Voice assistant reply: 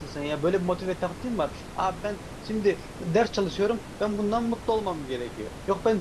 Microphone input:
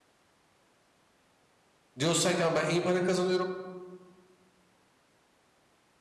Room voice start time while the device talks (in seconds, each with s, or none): 2.0 s